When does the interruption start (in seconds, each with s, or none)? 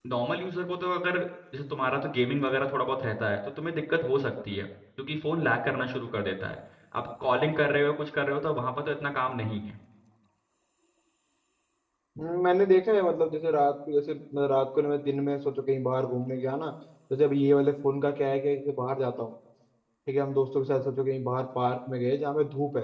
none